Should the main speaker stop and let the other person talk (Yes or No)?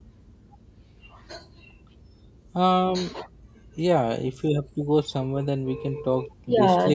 Yes